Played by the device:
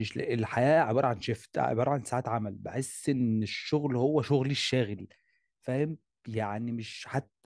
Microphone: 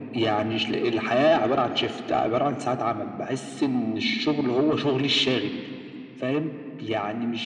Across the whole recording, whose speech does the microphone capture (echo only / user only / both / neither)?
echo only